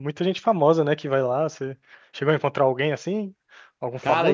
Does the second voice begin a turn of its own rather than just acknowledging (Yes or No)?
Yes